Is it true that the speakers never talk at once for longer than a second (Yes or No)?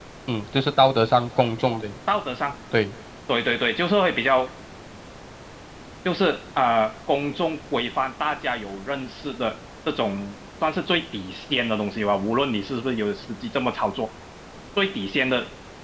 Yes